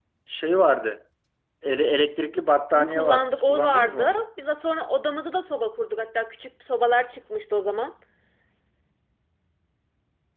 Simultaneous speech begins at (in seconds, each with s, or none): 2.7 s